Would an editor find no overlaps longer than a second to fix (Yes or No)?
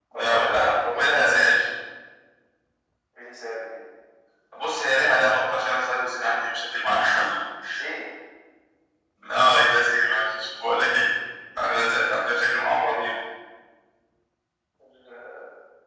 No